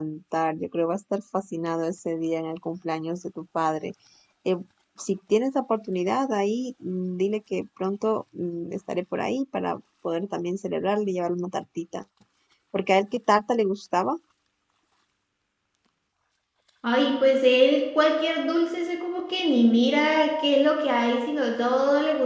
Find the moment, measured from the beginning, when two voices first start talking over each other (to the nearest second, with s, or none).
none